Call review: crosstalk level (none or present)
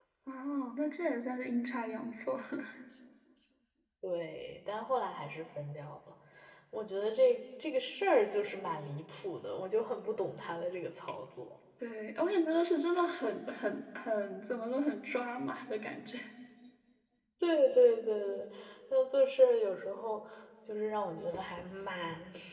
none